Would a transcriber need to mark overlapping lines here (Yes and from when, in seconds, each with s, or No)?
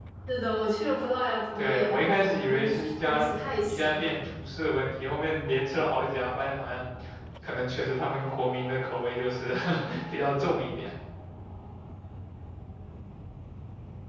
Yes, from 1.6 s